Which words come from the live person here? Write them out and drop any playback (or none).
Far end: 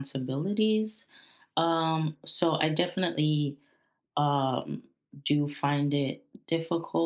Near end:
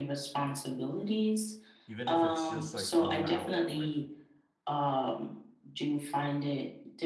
even if it's just like 1 hour like